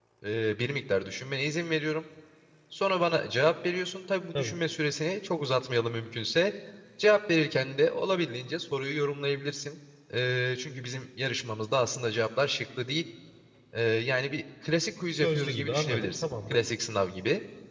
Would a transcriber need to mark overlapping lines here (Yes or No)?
Yes